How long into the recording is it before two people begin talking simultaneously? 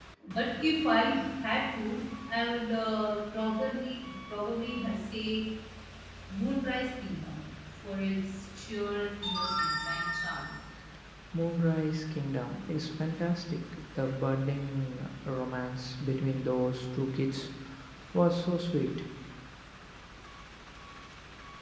none

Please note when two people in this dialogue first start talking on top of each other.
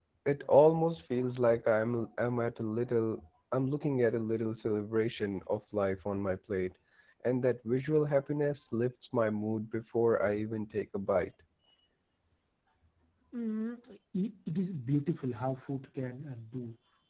none

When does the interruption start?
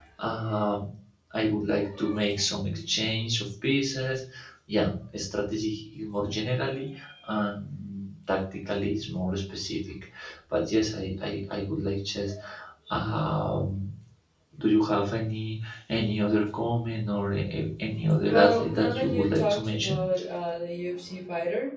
18.3 s

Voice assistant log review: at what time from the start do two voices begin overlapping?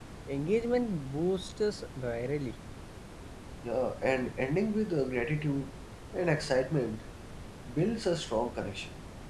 none

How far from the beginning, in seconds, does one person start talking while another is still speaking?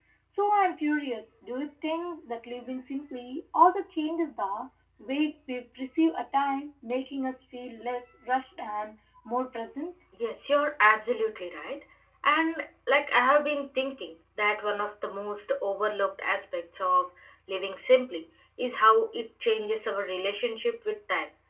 none

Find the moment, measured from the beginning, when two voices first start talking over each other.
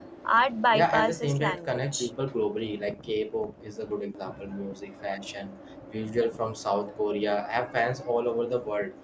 0.7 s

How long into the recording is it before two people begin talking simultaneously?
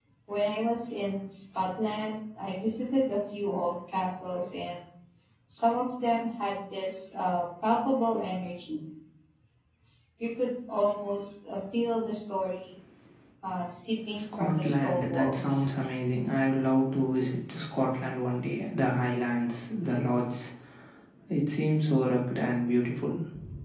14.3 s

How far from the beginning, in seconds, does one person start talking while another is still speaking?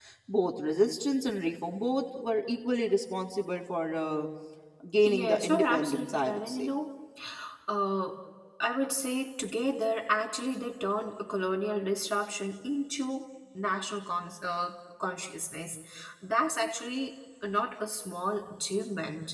5.0 s

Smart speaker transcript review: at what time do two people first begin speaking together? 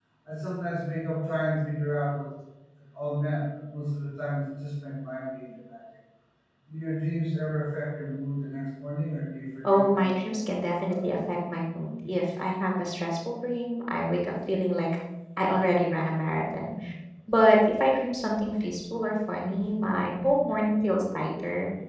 9.6 s

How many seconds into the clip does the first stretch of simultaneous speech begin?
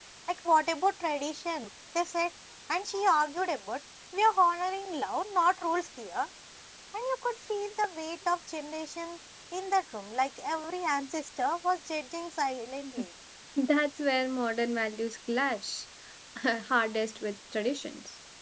none

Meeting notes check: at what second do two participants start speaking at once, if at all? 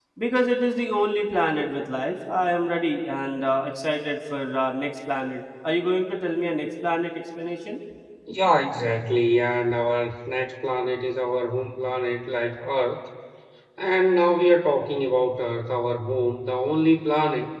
none

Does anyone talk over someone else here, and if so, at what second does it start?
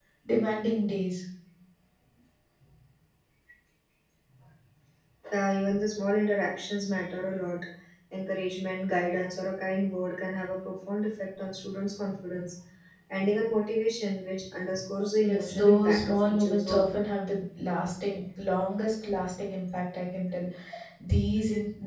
15.3 s

